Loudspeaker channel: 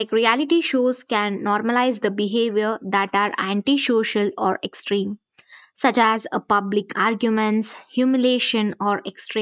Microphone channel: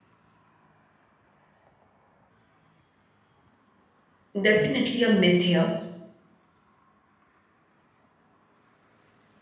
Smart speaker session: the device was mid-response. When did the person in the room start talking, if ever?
4 s

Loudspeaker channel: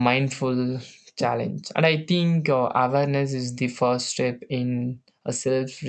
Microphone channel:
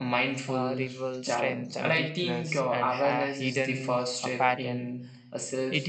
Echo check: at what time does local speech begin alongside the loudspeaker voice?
0 s

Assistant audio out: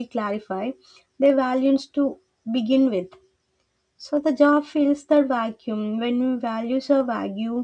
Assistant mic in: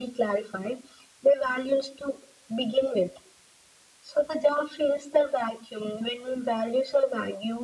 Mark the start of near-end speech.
none

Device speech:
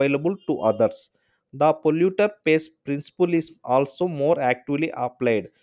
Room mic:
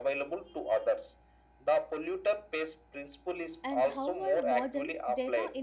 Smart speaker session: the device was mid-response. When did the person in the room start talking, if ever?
4 s

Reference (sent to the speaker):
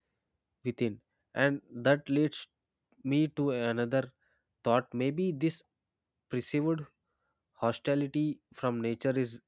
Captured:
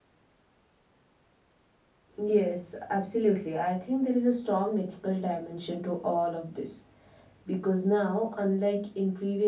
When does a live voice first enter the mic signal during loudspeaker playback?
2 s

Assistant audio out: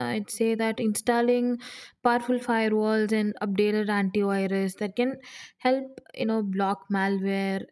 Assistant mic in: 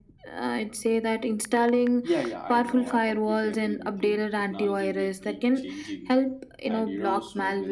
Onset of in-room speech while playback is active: 2 s

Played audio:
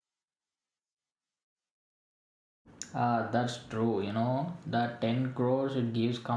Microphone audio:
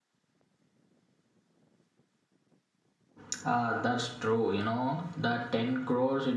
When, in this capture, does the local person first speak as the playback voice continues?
none

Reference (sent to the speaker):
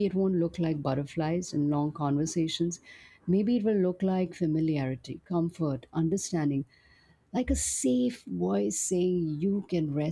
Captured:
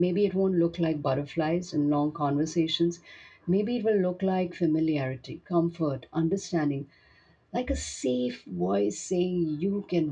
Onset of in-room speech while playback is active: none

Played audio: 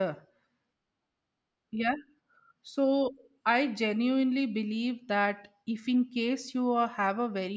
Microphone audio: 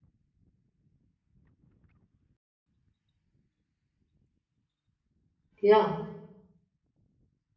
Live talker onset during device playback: 6 s

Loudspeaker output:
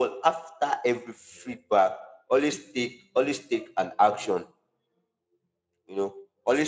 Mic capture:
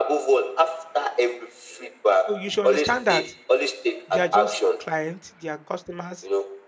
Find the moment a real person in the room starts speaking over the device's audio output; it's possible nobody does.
2 s

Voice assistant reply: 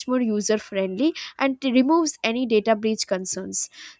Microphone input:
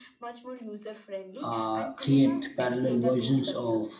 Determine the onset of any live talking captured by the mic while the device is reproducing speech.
1 s

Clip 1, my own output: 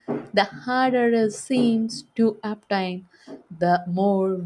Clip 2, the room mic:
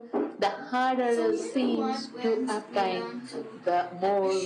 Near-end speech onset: 1 s

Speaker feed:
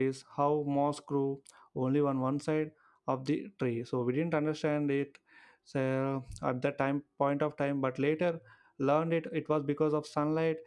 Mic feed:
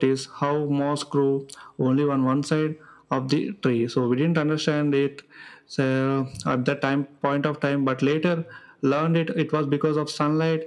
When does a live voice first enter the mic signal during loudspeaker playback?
none

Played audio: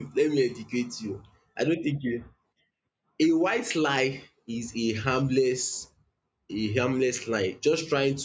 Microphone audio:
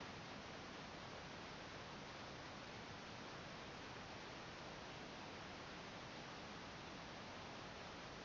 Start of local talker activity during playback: none

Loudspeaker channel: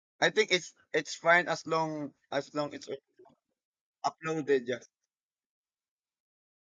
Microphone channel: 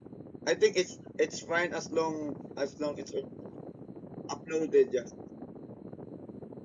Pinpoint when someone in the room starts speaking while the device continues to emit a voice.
none

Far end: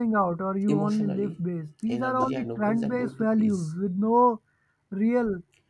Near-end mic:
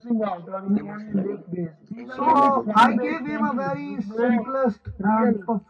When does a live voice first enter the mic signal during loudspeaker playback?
2 s

